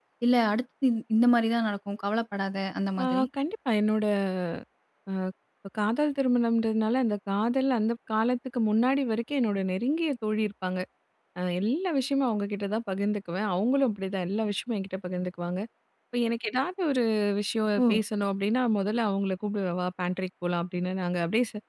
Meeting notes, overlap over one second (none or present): none